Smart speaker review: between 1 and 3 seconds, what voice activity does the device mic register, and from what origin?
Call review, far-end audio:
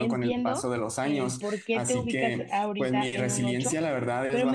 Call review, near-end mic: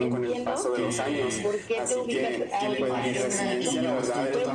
both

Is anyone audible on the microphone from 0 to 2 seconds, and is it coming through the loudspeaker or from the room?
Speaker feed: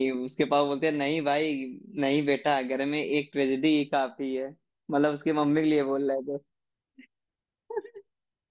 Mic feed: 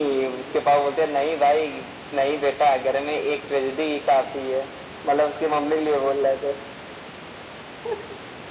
echo only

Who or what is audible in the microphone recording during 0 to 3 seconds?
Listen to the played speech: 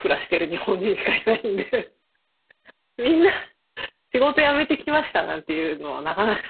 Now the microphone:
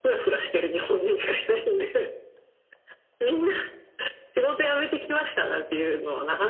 echo only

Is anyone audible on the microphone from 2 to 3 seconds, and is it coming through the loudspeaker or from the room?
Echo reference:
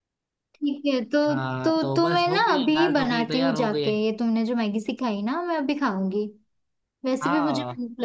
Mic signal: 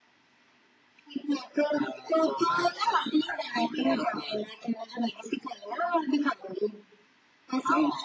both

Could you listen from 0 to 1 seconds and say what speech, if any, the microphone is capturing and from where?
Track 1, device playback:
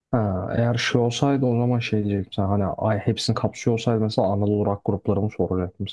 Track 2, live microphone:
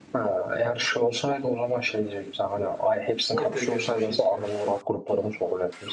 echo only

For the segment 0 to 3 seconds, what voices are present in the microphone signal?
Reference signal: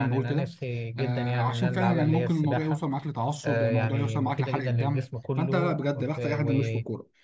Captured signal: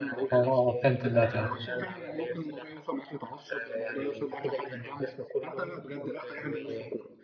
both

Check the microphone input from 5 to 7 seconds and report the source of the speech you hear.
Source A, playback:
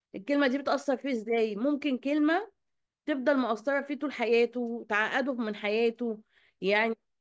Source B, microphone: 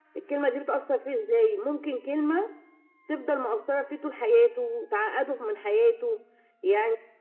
echo only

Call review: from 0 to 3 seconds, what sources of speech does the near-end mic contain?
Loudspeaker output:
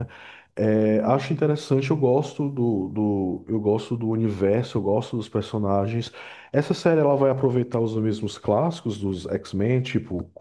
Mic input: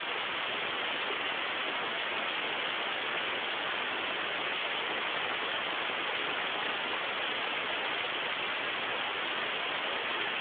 neither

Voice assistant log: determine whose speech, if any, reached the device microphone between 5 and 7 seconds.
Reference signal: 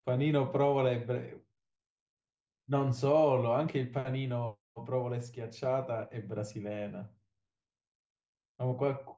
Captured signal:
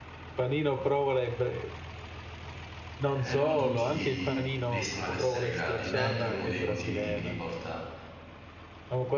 both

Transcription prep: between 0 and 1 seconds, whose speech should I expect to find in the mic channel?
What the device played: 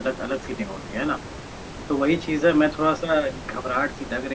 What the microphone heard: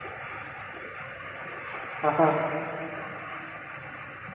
neither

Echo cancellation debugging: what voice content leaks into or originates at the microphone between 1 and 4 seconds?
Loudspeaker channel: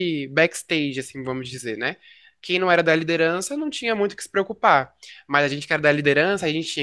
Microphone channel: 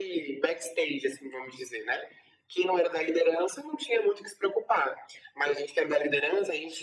echo only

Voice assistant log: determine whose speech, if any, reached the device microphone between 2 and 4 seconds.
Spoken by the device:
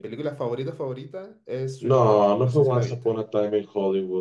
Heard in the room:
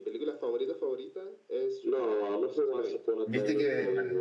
both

